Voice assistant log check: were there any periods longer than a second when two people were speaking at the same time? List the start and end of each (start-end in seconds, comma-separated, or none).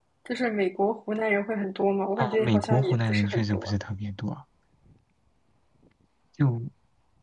2.2-3.7